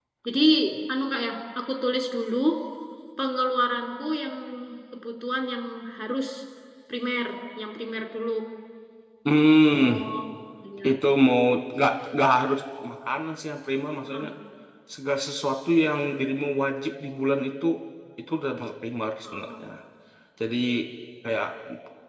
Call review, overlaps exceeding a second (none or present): none